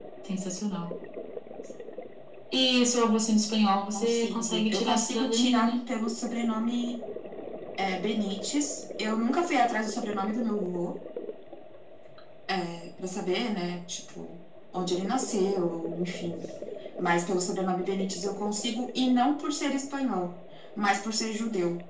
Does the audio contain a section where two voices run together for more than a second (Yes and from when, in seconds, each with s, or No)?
Yes, from 3.9 s